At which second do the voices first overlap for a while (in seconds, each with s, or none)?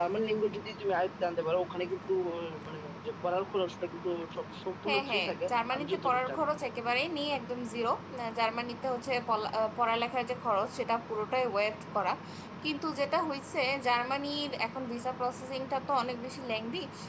4.8 s